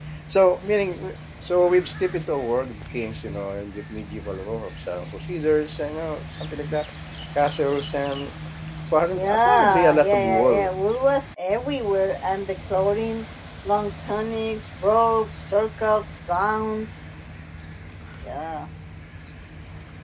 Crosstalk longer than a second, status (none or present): present